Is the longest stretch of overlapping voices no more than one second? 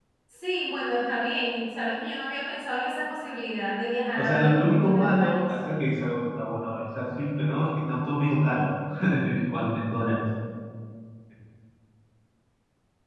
No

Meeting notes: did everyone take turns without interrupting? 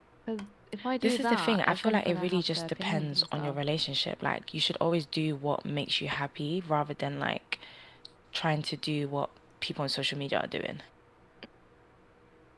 No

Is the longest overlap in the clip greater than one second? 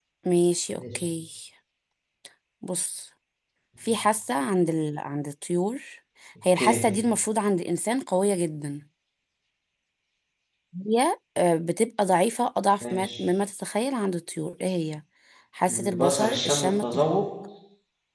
Yes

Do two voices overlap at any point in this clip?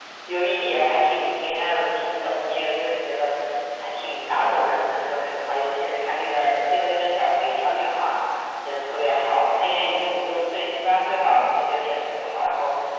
No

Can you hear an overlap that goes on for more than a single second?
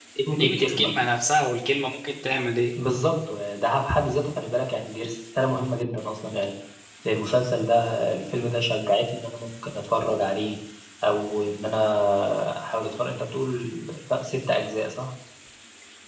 No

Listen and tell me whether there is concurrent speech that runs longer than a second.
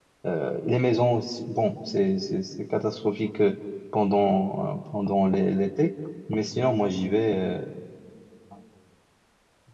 No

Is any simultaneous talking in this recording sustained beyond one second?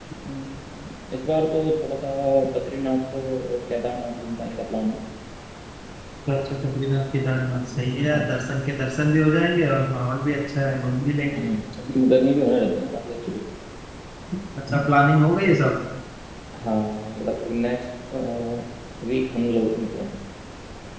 No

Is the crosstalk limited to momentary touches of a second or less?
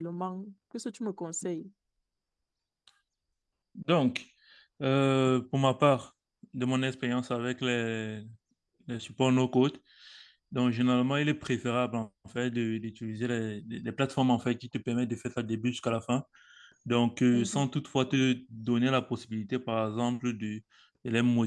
Yes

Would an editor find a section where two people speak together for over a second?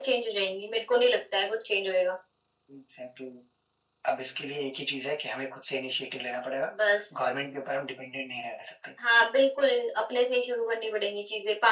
No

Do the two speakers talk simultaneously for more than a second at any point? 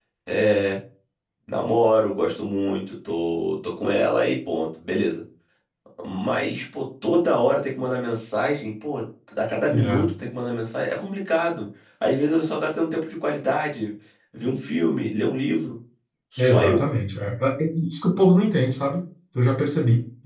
No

